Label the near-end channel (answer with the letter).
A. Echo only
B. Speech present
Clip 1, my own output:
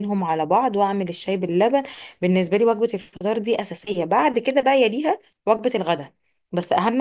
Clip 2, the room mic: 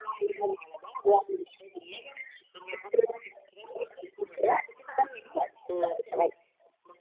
B